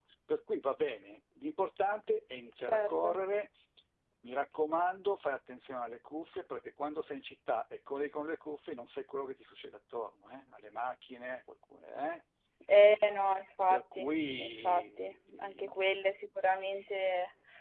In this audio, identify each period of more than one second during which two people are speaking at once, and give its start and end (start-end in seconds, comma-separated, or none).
13.7-15.8